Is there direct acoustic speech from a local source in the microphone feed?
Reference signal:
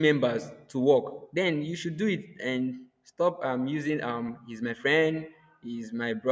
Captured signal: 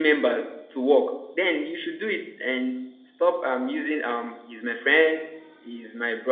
No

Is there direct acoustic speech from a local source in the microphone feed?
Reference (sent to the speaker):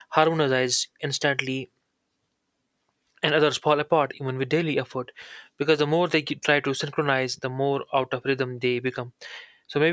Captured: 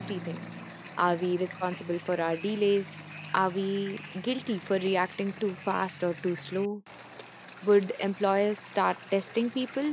Yes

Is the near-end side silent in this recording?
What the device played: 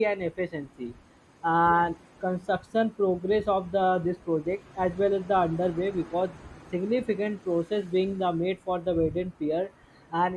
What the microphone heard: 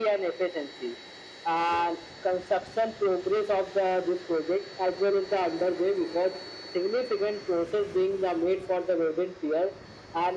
Yes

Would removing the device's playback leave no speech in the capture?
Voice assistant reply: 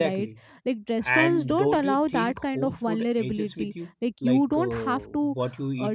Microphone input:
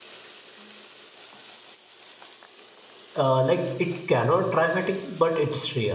No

